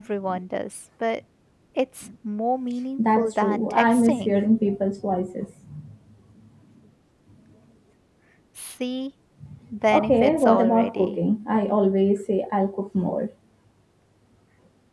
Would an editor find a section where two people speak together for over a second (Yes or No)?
Yes